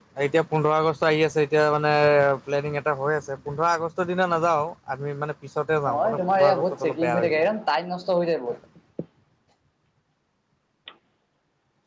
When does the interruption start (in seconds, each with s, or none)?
5.8 s